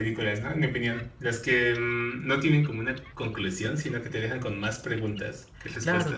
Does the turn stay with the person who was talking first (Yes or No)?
No